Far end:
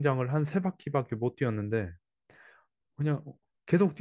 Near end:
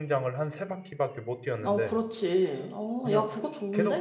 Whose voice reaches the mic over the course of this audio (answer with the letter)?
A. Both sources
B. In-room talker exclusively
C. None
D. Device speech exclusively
A